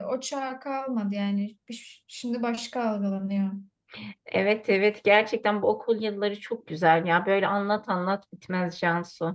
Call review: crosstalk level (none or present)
none